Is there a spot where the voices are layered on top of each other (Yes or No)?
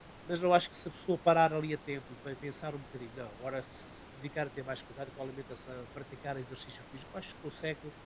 No